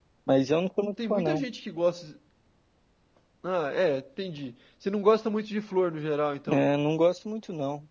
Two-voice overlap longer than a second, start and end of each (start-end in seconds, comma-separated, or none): none